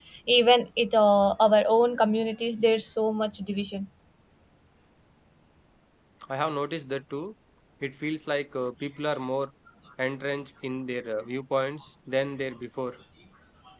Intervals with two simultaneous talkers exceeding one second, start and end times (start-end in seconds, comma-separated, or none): none